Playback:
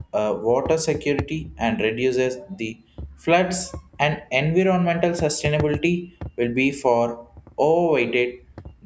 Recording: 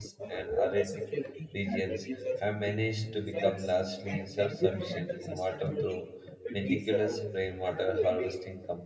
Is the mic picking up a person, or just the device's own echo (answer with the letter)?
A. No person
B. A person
B